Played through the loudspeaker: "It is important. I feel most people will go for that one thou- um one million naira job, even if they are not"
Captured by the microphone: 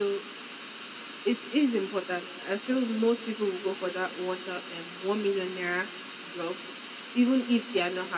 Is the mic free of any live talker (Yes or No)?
Yes